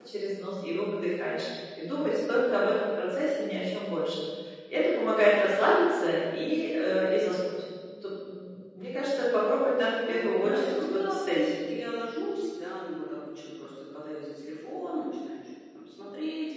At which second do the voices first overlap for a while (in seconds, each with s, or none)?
10.1 s